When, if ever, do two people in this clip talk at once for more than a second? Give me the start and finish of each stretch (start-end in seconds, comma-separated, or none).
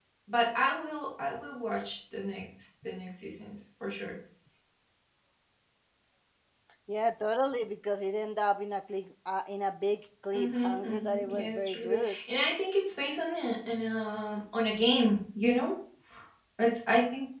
10.3-12.1